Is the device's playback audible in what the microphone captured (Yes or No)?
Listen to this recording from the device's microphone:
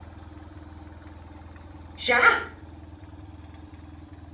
No